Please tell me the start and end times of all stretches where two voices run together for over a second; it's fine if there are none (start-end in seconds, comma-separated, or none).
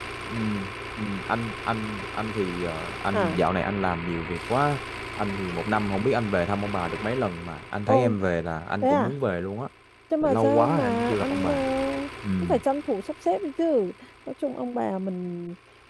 10.2-11.5